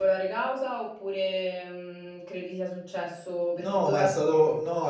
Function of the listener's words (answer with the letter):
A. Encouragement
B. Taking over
B